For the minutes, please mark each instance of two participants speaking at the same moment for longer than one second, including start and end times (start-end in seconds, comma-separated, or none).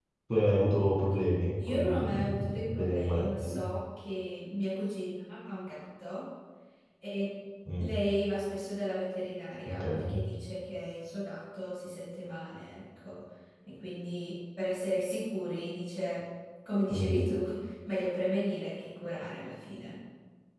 1.7-3.6